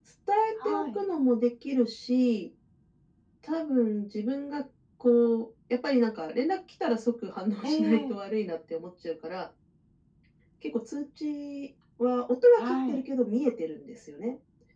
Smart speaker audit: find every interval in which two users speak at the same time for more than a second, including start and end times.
none

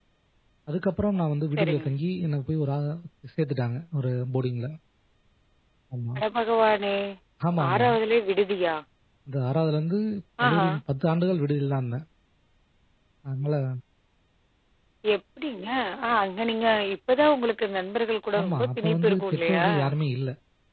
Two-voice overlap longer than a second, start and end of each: 18.4-19.7

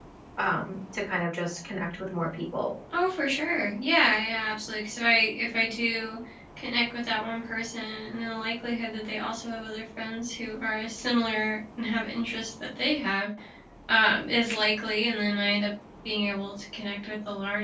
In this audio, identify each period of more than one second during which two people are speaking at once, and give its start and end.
none

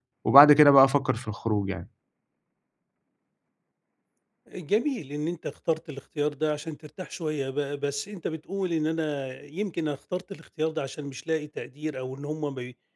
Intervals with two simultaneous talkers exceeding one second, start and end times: none

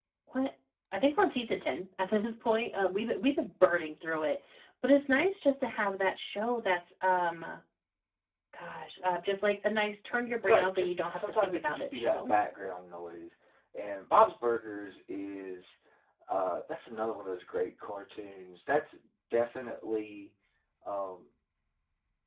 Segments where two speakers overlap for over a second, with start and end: 10.4-12.3

